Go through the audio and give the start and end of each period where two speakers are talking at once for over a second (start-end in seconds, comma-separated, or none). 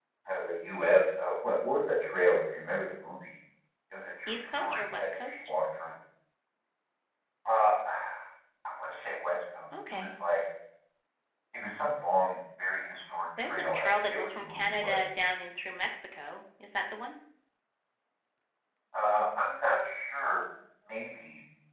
4.3-5.5, 13.4-15.1